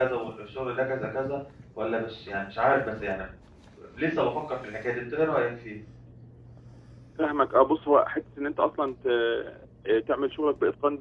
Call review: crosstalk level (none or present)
none